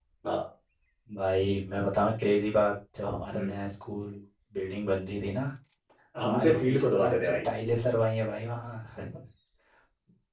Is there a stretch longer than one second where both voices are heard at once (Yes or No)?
Yes